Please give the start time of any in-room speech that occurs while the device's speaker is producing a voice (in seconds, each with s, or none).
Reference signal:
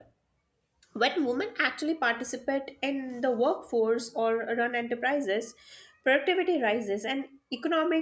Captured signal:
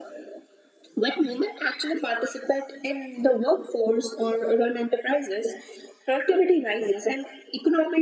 none